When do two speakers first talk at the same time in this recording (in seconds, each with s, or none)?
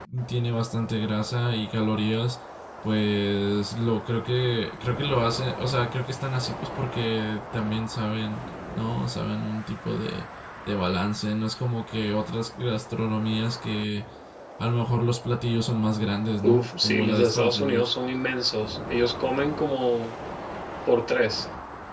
16.4 s